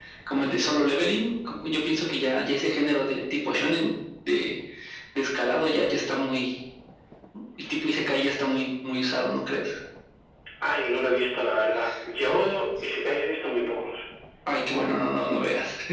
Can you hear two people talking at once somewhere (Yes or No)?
No